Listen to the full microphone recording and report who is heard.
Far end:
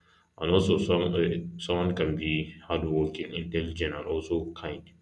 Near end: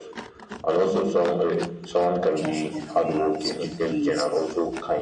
both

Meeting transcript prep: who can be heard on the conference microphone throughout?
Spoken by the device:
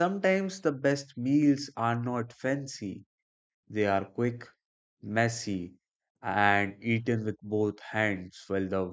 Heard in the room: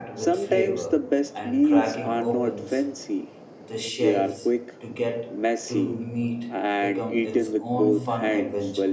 both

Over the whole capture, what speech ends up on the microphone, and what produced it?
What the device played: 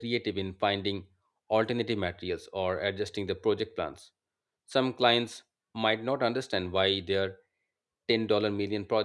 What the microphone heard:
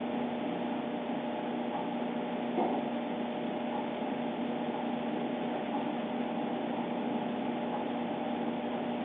neither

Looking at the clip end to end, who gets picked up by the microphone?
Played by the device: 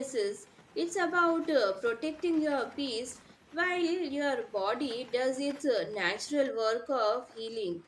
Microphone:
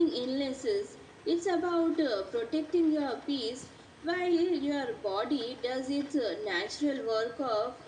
echo only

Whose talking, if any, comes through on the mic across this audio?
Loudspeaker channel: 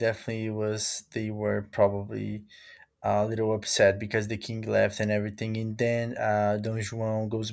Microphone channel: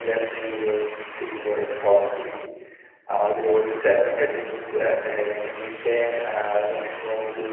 echo only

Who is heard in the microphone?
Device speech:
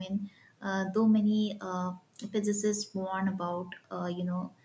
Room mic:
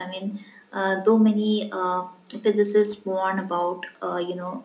echo only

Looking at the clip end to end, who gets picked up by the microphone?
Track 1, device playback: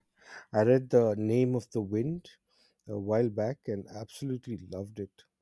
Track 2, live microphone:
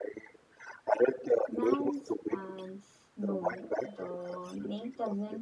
both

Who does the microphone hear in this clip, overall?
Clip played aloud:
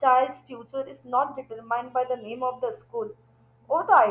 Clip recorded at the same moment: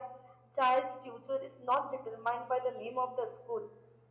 echo only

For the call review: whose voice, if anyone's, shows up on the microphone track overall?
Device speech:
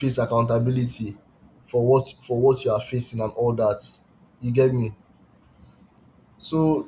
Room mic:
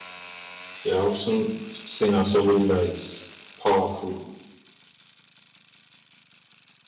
user only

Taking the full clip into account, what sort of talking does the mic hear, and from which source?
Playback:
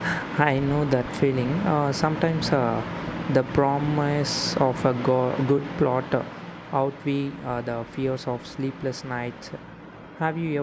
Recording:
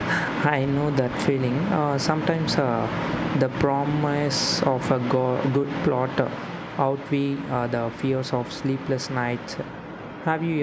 echo only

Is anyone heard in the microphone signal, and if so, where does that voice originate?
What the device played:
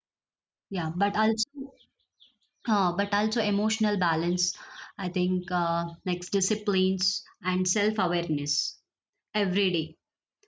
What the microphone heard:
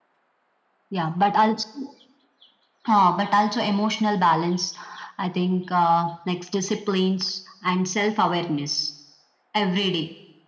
echo only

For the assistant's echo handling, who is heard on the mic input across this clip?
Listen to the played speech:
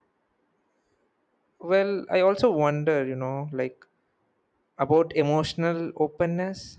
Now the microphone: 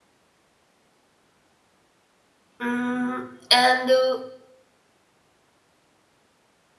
user only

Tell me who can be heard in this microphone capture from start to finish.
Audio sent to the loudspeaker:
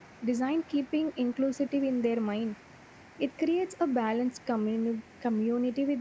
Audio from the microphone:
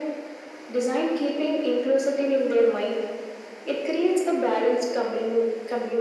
echo only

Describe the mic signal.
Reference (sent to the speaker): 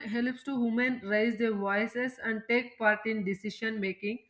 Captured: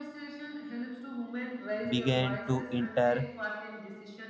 both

